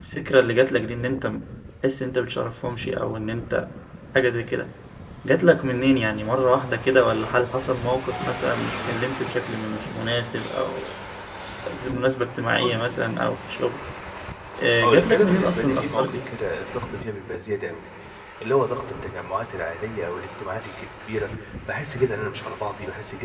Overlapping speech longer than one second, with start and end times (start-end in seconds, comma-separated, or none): 14.8-16.3